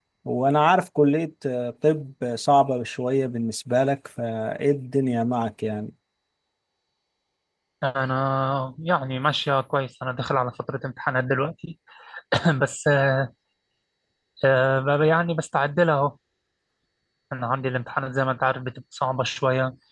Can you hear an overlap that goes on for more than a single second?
No

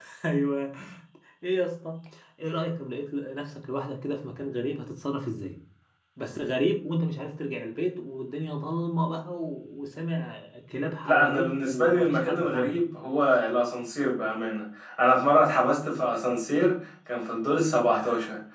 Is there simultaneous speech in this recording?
Yes, from 11.0 s

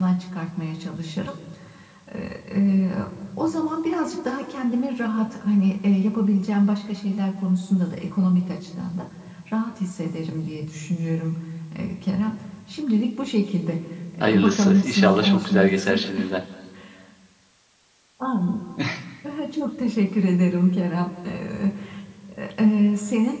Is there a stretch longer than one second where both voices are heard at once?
Yes, from 14.2 s

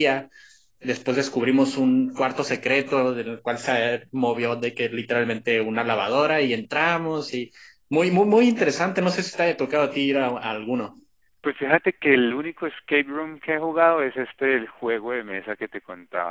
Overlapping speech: No

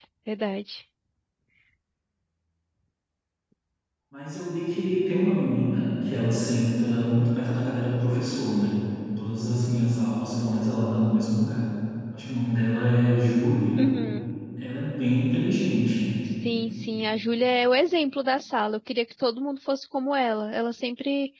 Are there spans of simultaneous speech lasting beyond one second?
No

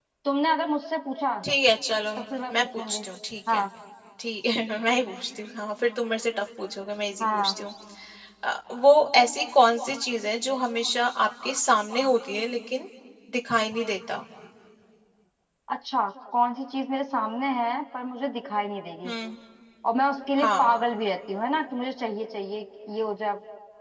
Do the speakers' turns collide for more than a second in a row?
No

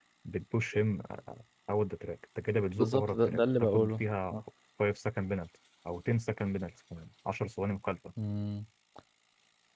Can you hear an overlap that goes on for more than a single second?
Yes, from 2.8 s

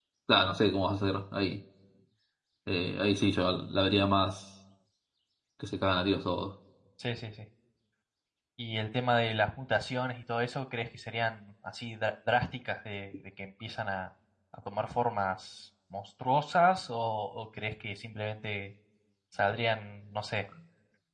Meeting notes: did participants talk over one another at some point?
No

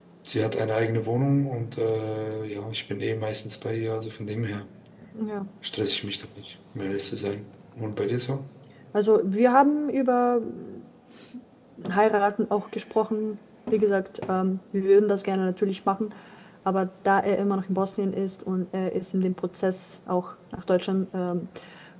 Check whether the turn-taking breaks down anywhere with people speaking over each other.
No

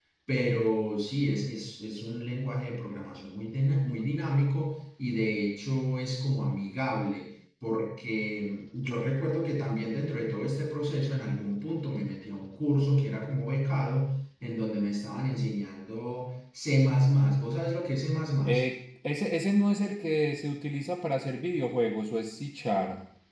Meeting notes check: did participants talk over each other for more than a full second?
No

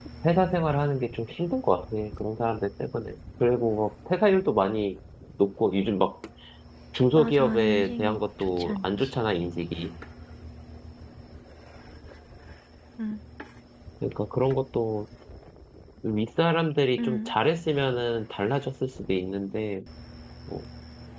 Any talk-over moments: Yes, from 7.1 s

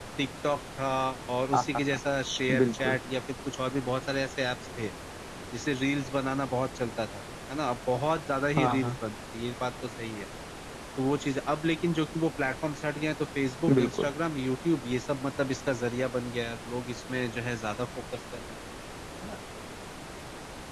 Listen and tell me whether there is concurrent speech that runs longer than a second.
No

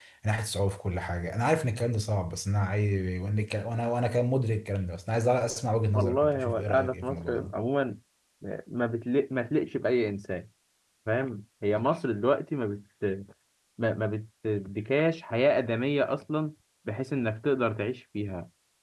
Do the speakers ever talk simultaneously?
Yes, from 6.0 s

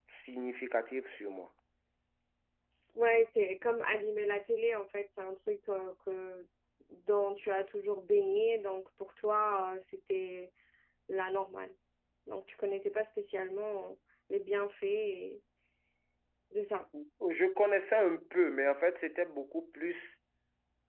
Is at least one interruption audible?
No

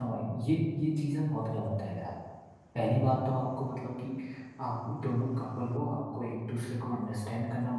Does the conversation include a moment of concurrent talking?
No

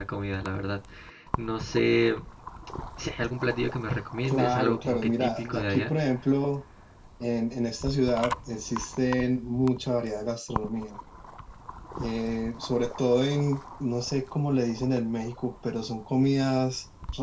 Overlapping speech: Yes, from 4.2 s

